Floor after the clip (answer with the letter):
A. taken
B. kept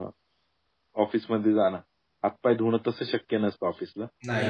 B